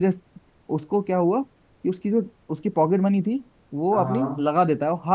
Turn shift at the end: No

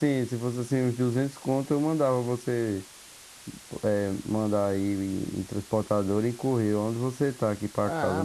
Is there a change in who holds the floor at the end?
Yes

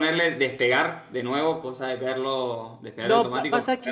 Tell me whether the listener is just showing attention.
No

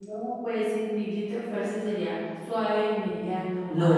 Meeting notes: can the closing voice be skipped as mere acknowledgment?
No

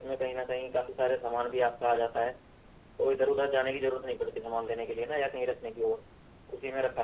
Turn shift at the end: Yes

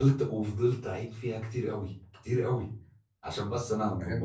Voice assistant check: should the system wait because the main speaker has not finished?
No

